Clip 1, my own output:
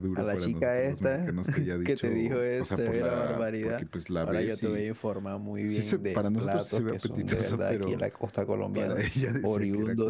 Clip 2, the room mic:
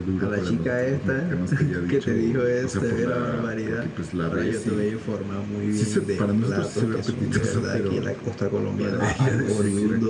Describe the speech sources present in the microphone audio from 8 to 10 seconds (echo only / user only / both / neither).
both